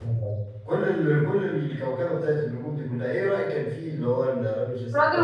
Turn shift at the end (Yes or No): Yes